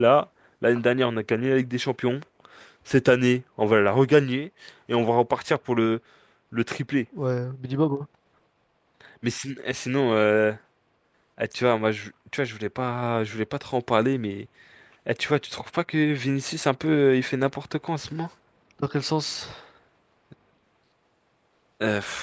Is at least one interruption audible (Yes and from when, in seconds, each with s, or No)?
No